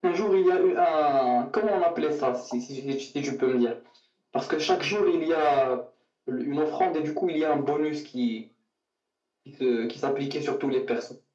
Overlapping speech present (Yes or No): No